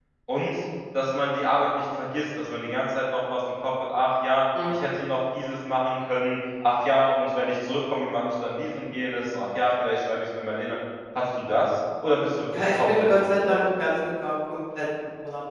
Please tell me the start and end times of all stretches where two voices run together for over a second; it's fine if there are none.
12.6-13.9

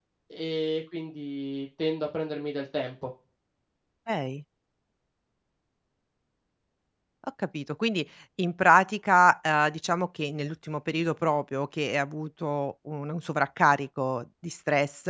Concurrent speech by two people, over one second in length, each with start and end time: none

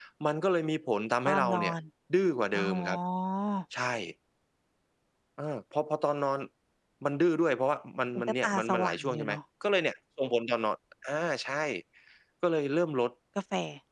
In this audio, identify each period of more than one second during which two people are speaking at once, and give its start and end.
8.2-9.4

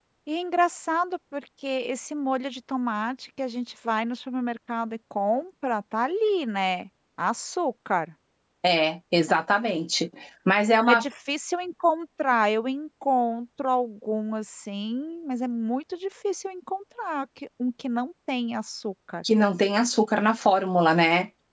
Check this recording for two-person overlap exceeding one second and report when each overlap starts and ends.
none

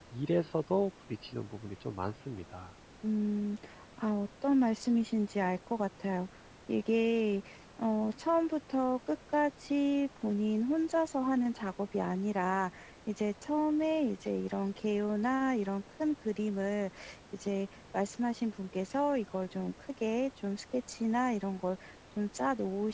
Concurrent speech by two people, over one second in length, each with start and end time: none

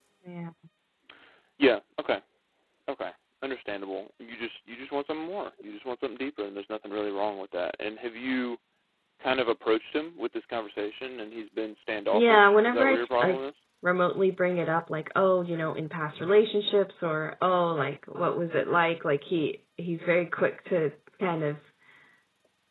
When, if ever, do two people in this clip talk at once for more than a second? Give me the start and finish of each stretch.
12.1-13.4

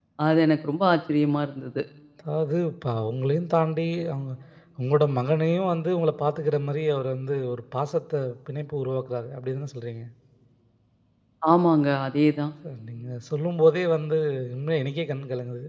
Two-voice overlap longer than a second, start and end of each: none

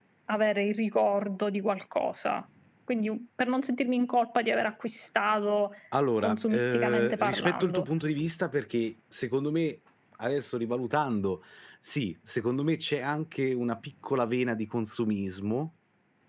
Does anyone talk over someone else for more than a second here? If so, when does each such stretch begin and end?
6.2-7.9

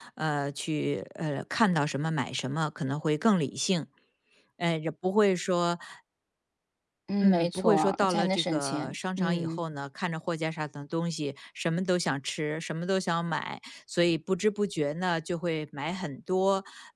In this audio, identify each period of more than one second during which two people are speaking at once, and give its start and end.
7.2-9.6

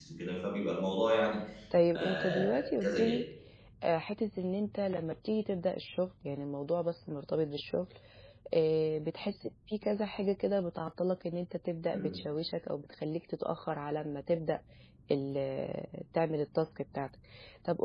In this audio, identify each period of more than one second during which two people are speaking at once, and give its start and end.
1.9-3.2

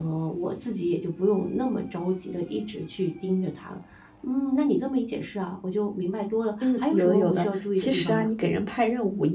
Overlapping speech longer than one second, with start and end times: 6.6-8.3

